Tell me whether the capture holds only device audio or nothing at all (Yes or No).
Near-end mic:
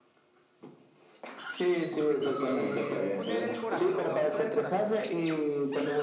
No